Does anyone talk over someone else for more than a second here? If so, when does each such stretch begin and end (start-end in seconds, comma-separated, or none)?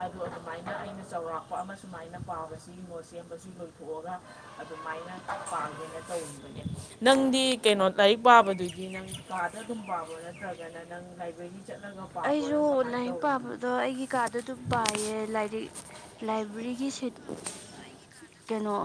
12.3-13.5